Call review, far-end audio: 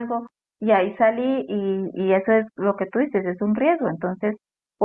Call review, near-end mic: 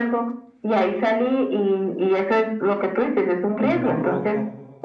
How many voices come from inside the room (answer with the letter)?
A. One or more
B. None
A